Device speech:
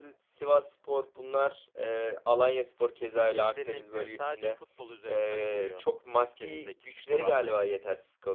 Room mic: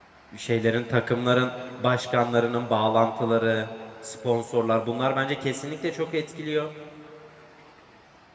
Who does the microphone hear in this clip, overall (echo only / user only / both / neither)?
user only